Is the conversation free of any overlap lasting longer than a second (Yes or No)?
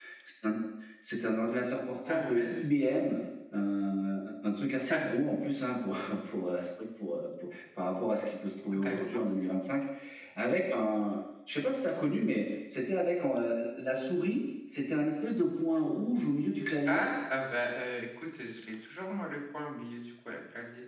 Yes